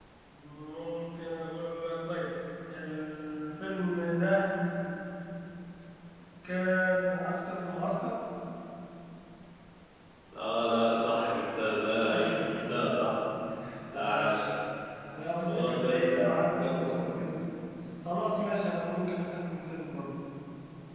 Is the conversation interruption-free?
No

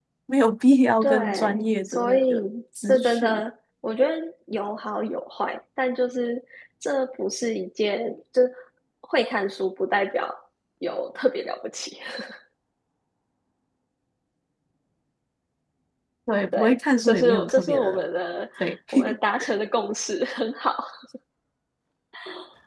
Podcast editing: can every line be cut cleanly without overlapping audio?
No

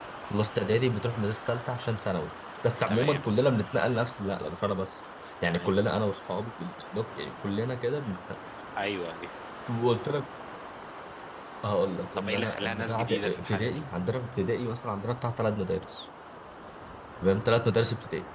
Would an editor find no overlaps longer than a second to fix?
No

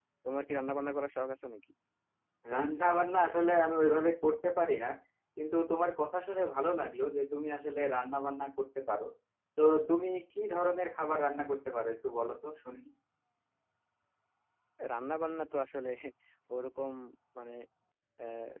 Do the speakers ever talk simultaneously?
No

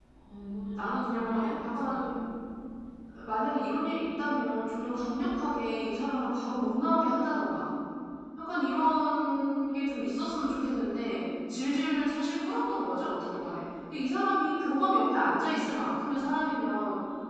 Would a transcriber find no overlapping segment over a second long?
No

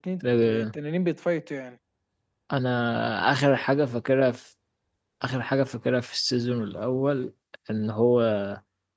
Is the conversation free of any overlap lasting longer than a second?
Yes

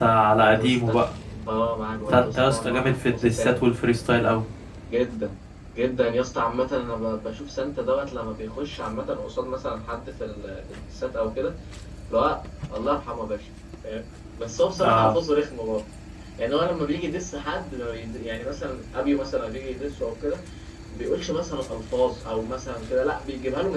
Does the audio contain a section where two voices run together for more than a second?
Yes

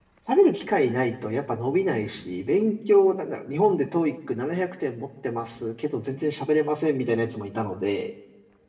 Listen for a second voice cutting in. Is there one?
No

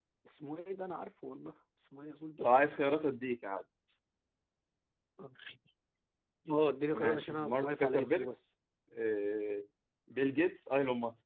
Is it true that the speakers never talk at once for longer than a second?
No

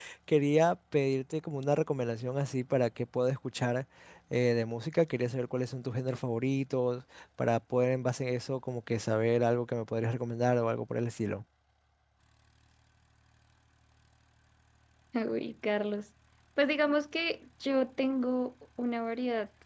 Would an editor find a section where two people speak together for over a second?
No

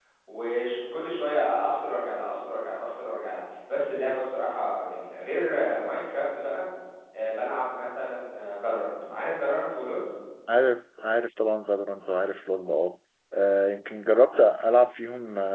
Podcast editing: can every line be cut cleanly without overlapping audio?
Yes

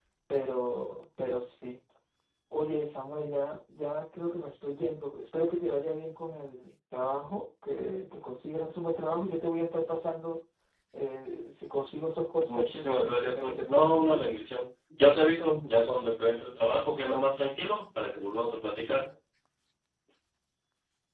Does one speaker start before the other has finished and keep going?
Yes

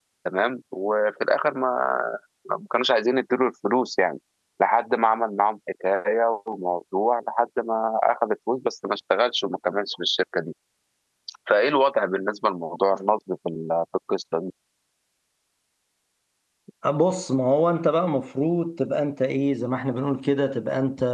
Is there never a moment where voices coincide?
Yes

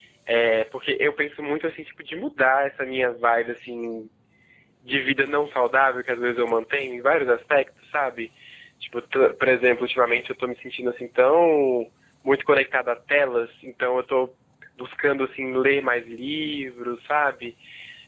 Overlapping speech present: No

